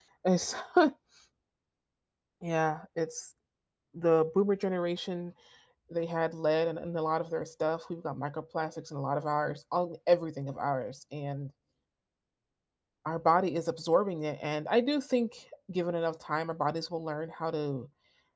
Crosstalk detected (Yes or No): No